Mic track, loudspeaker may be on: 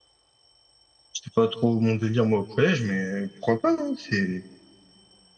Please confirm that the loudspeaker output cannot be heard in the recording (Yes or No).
Yes